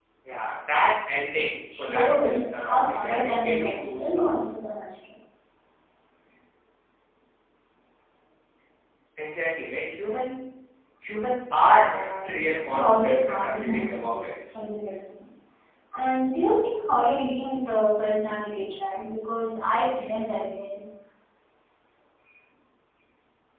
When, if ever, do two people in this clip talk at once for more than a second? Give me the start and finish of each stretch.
1.8-4.2, 11.7-14.6

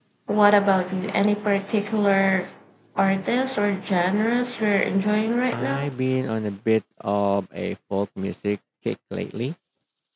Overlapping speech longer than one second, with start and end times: none

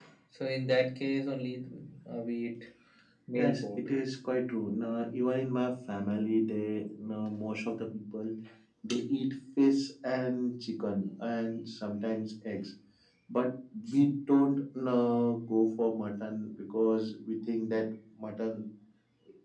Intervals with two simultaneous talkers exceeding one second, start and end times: none

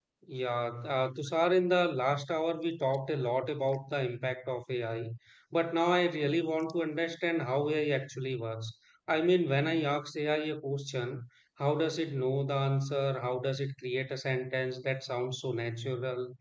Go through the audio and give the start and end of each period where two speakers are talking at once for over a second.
none

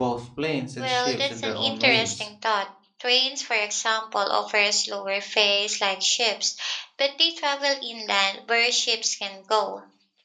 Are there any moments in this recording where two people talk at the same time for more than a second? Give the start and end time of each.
0.8-2.3

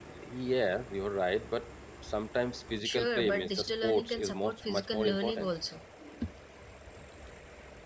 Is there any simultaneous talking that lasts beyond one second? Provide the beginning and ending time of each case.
2.8-5.5

